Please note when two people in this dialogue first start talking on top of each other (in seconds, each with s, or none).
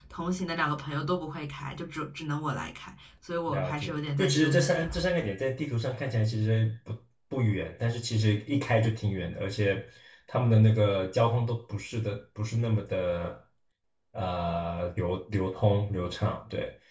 3.5 s